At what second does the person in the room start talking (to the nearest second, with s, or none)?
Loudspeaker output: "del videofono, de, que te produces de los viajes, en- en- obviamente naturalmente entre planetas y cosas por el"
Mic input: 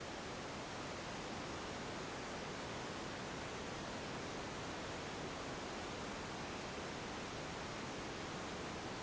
none